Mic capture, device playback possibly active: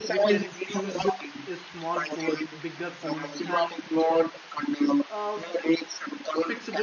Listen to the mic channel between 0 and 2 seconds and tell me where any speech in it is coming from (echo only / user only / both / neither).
both